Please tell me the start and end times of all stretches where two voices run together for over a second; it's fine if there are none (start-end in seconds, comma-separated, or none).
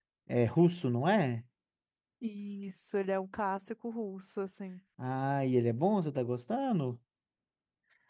none